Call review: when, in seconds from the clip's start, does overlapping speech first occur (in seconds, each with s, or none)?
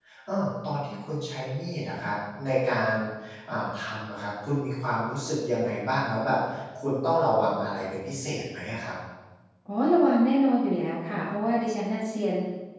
none